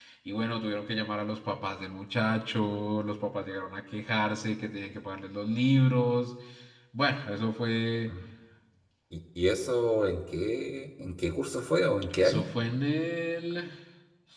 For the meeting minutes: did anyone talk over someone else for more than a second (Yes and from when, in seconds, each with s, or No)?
No